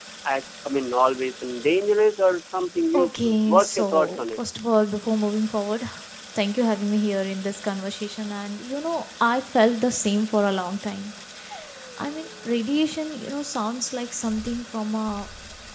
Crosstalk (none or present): present